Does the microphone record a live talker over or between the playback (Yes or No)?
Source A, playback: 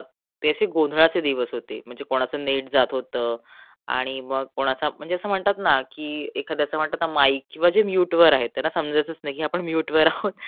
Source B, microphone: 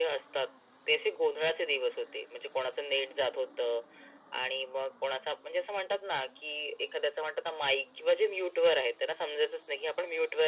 No